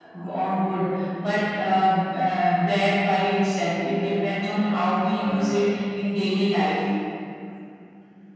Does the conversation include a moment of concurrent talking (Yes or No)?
No